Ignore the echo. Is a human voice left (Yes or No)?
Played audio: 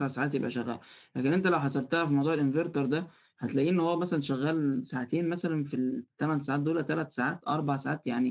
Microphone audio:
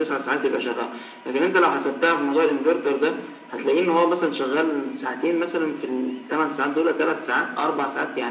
No